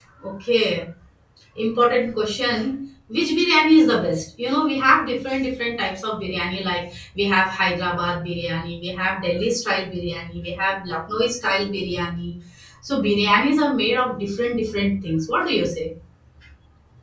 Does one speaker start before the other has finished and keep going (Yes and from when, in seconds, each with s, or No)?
No